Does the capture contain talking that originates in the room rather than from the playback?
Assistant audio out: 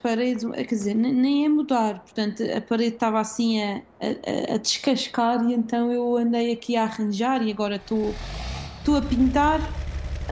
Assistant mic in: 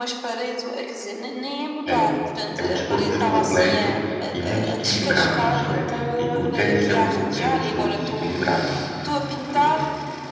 Yes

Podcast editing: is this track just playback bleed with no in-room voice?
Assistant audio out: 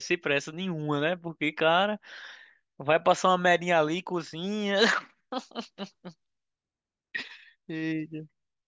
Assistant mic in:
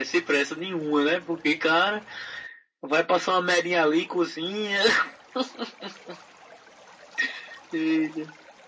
Yes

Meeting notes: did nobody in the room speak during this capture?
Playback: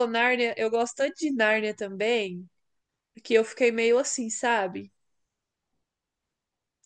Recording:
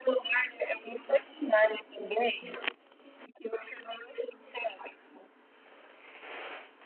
Yes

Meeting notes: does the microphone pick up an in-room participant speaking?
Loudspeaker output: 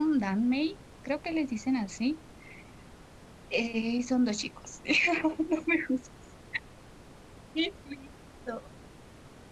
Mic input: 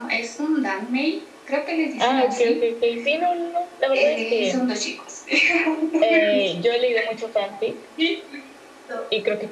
Yes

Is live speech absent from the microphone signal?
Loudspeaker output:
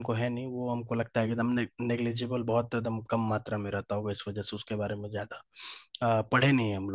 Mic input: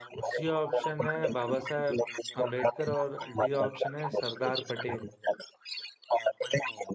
No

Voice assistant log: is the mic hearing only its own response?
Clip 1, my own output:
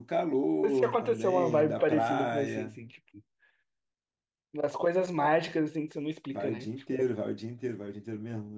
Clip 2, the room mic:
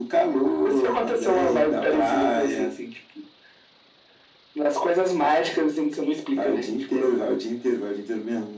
Yes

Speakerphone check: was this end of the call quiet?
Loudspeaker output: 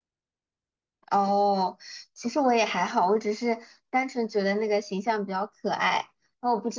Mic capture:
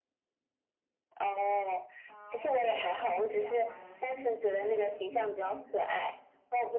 No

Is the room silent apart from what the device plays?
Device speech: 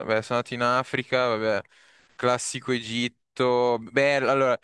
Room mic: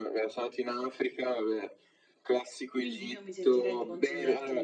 No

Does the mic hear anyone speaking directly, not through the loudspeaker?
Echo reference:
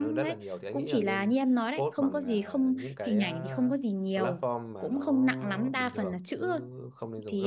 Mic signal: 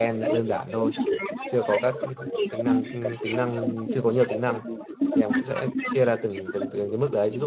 Yes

